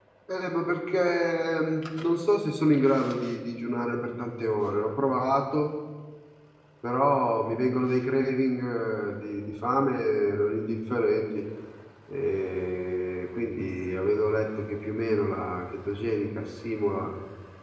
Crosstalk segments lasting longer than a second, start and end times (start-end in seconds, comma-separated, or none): none